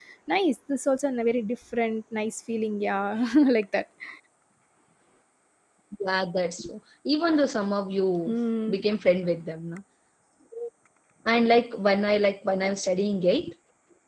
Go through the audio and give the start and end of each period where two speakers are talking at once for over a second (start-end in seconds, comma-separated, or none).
none